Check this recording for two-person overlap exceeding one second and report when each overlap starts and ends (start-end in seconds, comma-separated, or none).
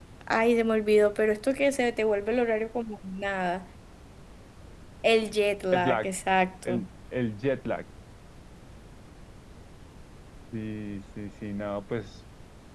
none